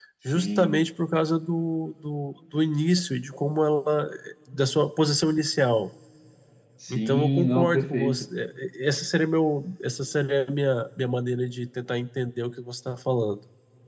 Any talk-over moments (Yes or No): Yes